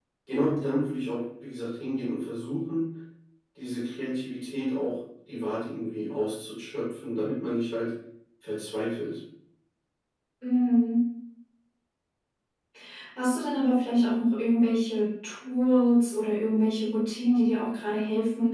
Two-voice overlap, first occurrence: none

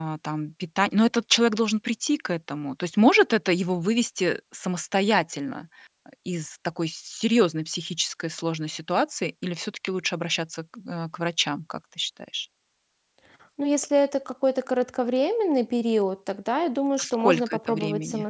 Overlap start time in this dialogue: 17.0 s

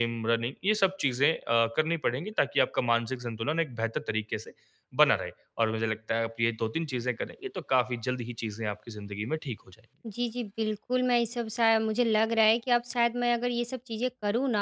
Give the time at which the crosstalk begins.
none

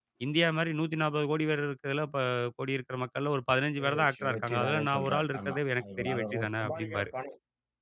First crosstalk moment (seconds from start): 3.8 s

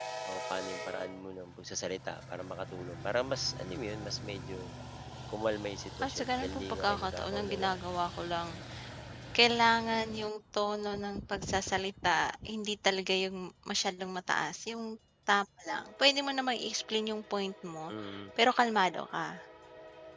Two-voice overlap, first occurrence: 6.0 s

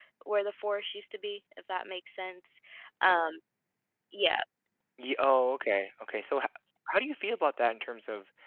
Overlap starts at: none

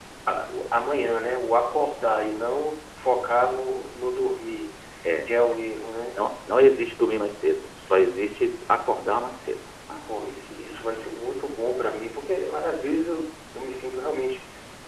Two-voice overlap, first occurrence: none

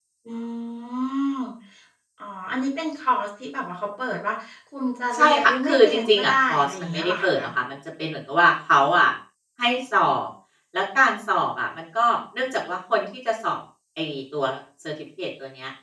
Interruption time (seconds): 5.1 s

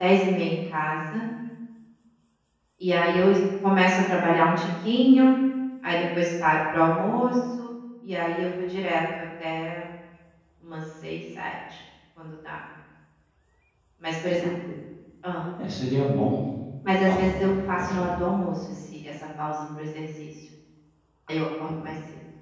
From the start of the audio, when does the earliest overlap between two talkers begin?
17.0 s

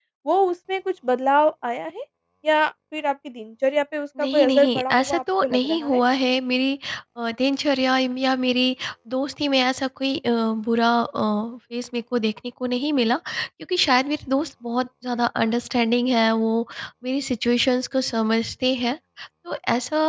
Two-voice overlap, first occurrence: 4.2 s

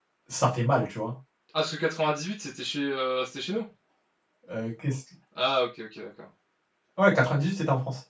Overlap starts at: none

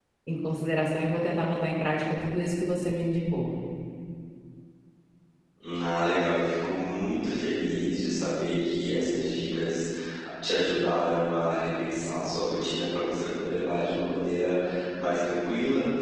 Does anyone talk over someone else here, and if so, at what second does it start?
none

